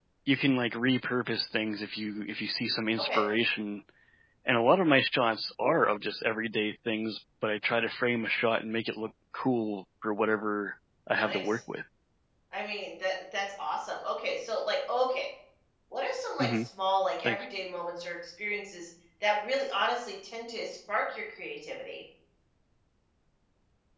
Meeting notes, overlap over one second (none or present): none